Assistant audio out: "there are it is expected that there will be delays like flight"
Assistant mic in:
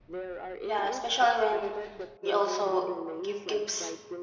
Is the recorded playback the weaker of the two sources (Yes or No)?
Yes